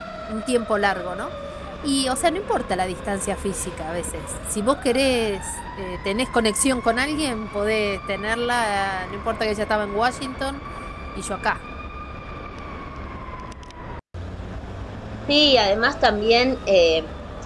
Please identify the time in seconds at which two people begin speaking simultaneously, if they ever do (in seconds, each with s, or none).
none